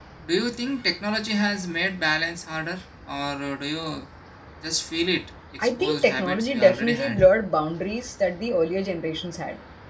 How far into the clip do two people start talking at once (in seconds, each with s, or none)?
5.6 s